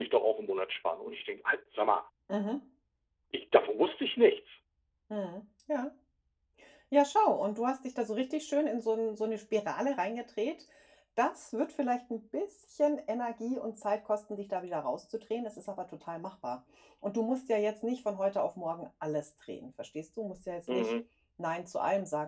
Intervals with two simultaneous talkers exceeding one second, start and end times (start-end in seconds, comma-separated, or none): none